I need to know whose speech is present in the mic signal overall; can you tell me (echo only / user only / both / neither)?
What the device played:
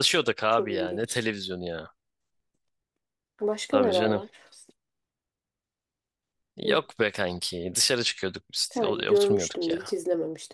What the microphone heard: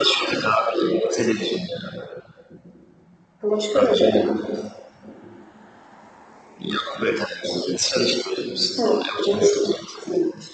echo only